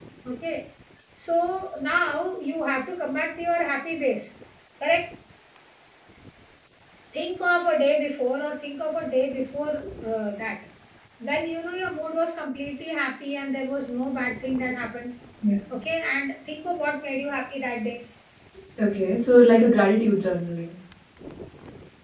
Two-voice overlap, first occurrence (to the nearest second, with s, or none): none